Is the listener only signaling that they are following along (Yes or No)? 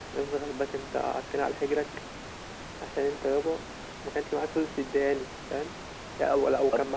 Yes